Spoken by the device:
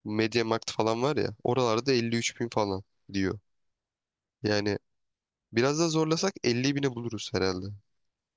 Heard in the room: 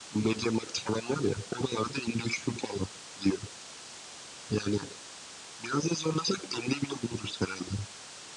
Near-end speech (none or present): none